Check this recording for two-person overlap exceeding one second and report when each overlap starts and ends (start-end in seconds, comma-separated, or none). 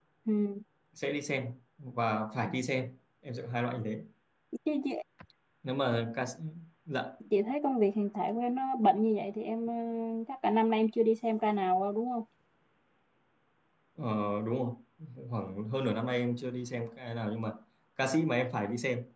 none